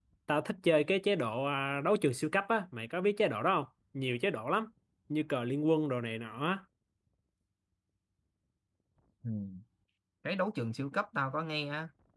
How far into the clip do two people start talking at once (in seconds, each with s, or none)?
none